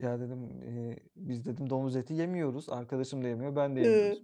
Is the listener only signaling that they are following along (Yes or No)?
Yes